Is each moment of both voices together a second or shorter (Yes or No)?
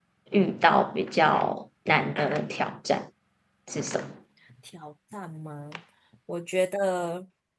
Yes